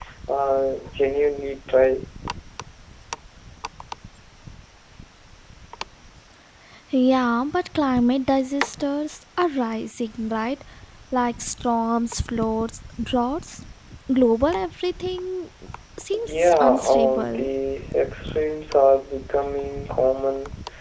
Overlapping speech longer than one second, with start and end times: 16.3-17.5

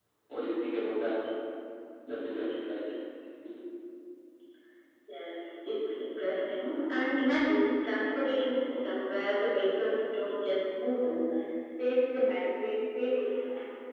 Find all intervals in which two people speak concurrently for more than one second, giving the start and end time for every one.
none

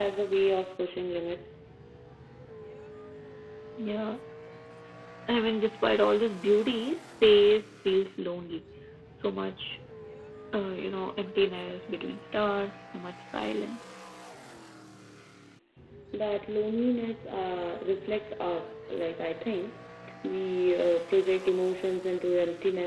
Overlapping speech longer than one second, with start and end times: none

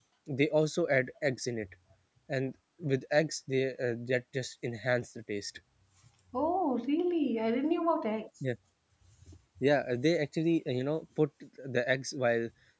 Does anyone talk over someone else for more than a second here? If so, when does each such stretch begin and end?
none

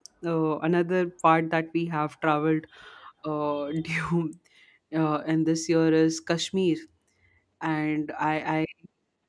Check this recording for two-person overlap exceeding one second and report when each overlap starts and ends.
none

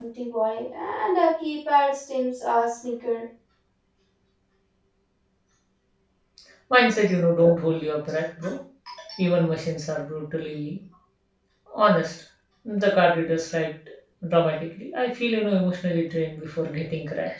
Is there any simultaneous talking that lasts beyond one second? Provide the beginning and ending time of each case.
none

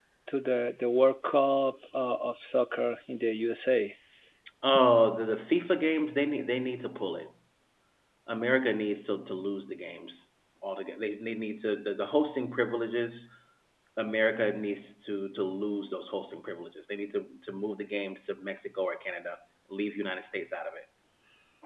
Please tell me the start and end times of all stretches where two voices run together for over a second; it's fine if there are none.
none

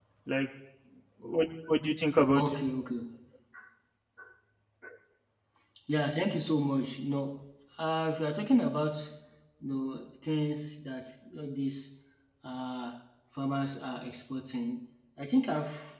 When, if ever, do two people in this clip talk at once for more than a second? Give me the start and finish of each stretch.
none

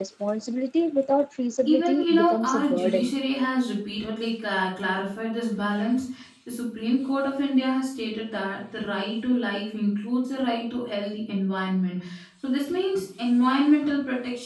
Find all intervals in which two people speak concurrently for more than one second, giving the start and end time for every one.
1.7-3.1

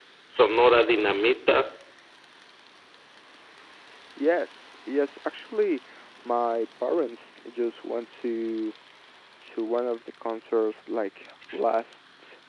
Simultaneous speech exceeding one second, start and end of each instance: none

